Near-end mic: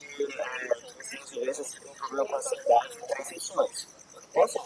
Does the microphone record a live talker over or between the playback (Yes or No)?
No